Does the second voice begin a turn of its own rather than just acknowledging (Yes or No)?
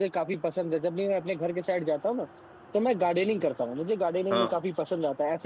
No